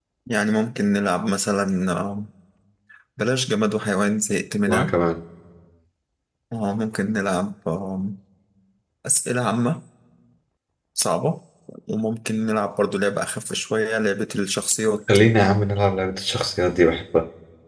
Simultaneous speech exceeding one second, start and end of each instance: none

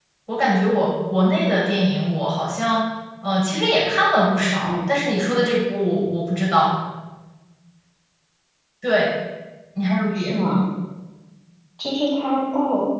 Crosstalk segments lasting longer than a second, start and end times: none

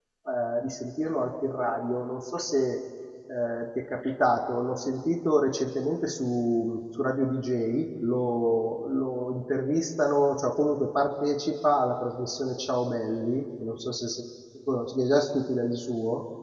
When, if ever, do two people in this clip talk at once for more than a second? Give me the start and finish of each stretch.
none

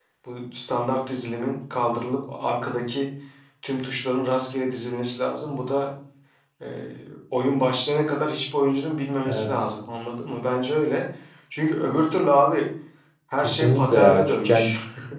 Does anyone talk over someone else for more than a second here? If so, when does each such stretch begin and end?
13.4-14.7

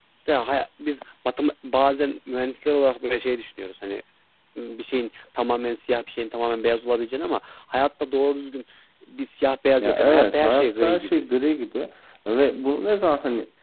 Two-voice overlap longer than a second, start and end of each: 9.8-11.2

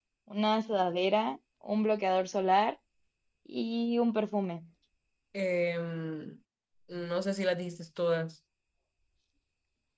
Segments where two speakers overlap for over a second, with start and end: none

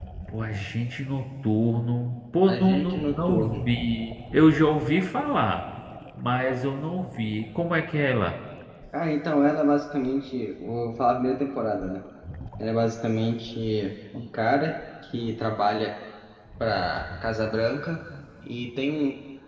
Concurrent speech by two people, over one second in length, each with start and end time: 2.5-3.7

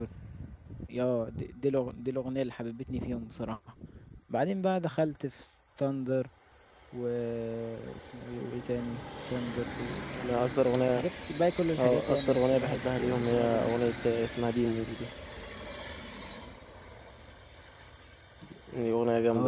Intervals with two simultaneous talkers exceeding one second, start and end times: 11.8-13.8

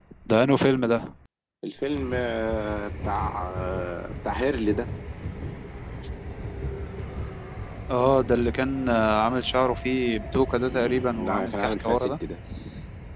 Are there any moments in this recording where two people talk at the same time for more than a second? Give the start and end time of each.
10.7-12.1

